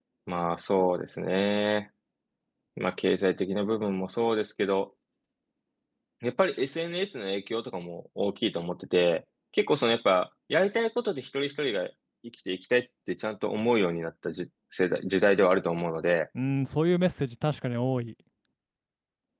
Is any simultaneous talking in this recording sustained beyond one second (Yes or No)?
No